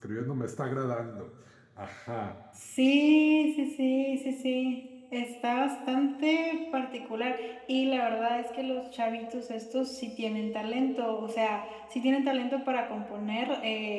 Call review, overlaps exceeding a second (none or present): none